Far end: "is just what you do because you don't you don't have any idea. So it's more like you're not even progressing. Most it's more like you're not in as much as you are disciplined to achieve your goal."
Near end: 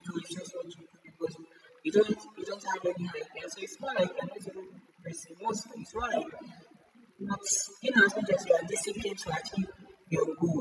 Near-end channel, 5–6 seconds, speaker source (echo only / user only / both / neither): echo only